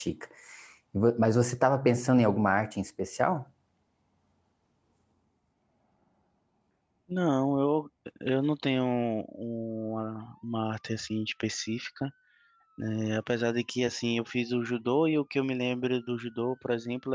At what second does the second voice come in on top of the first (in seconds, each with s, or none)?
none